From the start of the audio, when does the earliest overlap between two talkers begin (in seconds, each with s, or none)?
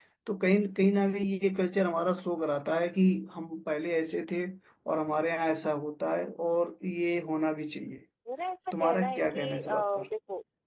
8.8 s